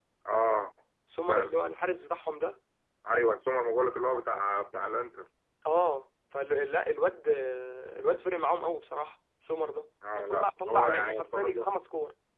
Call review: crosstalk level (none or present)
present